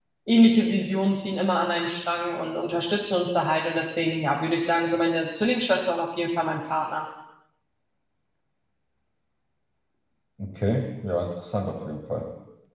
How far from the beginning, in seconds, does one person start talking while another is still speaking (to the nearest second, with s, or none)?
none